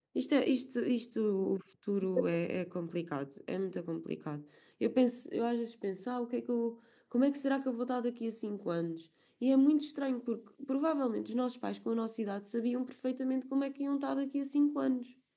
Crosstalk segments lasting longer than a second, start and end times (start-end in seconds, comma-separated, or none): none